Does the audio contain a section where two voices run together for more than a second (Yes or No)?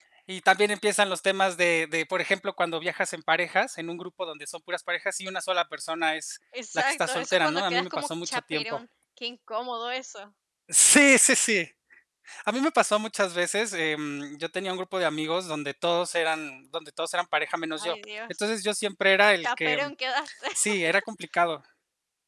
Yes